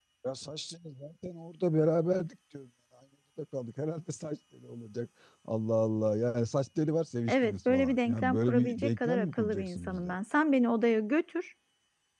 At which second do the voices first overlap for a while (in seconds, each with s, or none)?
7.3 s